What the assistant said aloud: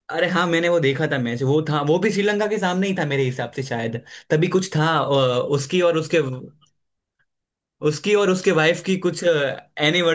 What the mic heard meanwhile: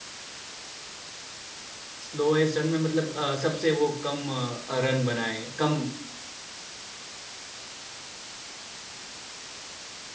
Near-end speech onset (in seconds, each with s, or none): 2.0 s